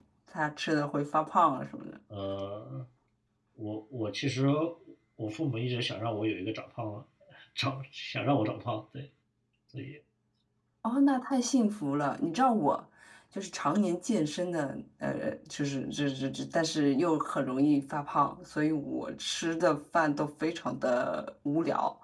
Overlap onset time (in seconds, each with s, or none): none